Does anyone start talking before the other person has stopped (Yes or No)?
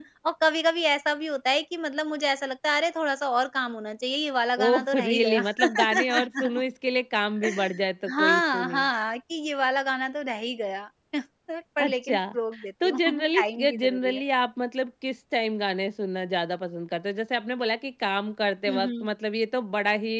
Yes